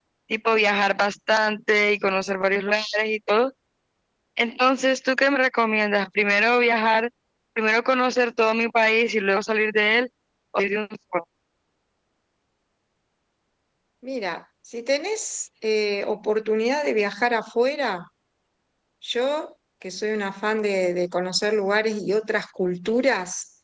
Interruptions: none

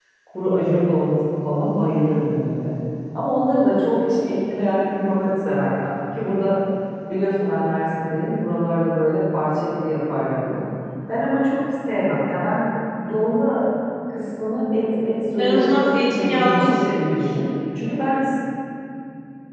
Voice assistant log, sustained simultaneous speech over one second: present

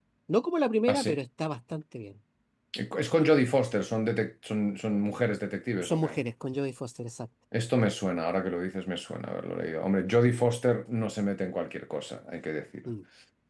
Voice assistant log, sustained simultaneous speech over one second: none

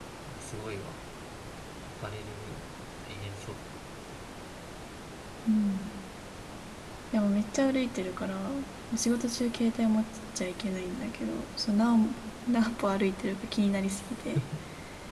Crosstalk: none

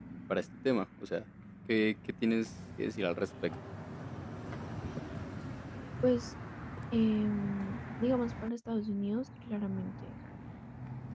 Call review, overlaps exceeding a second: none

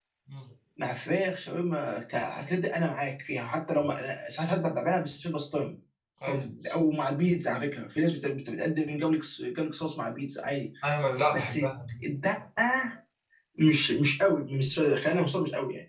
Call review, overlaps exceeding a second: none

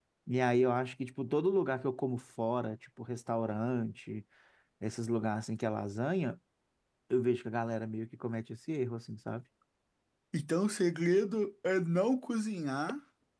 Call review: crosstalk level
none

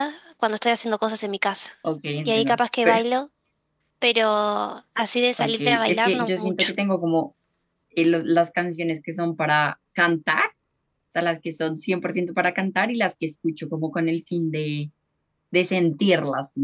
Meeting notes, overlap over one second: present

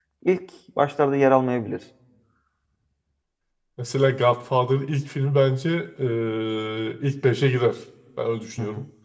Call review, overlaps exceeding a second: none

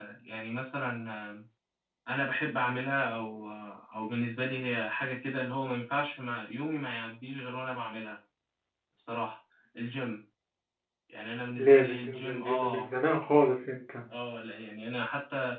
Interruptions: present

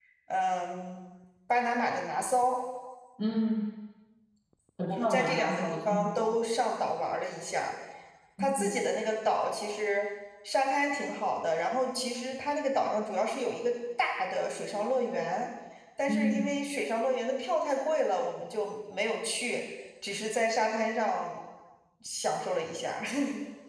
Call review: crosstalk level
present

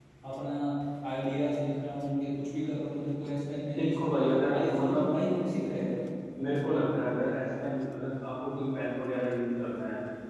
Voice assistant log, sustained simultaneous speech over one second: present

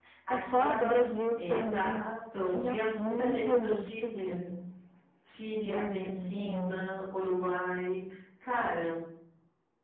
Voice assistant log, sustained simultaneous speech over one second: present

